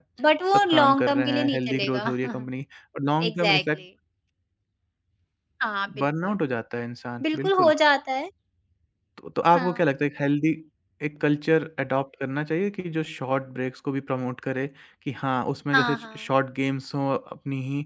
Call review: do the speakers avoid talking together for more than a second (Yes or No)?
No